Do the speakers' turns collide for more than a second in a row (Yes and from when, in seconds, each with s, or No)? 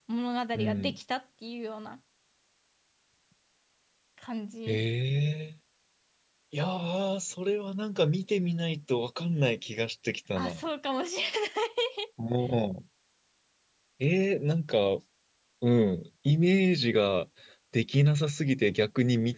No